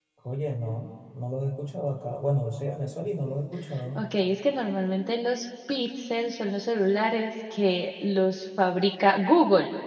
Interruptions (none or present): none